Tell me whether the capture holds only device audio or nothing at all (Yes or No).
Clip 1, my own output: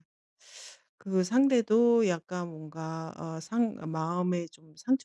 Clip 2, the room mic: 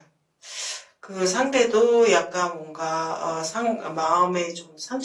Yes